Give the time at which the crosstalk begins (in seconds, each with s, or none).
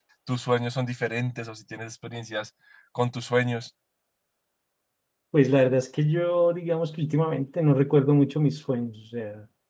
none